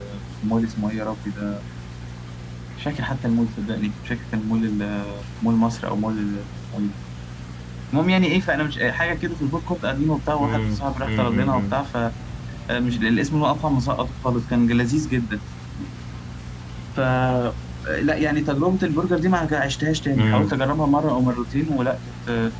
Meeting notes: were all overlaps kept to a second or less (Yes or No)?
No